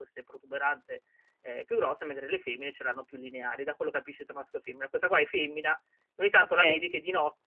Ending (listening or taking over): listening